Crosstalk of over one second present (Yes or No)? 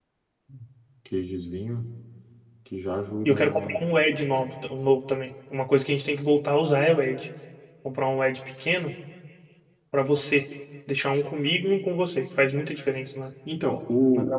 No